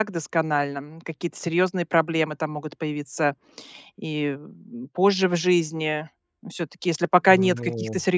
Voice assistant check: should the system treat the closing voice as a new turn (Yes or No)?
No